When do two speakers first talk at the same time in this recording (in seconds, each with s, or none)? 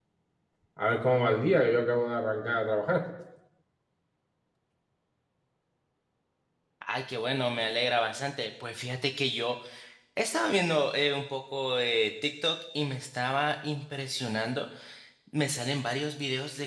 none